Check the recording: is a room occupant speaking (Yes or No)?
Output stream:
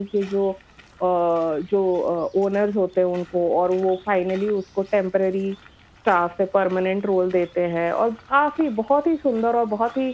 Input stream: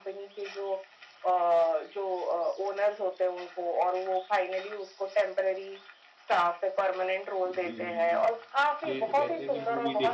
Yes